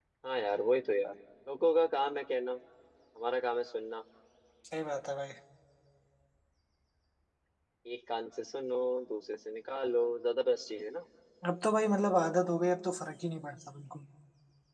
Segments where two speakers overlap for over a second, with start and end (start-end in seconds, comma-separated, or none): none